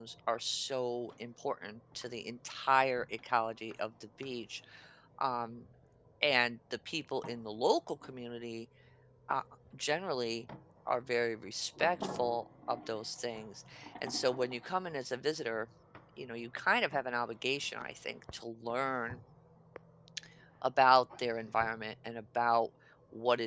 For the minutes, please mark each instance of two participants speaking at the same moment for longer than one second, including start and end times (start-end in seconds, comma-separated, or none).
none